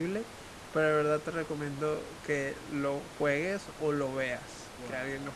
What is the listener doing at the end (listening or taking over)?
taking over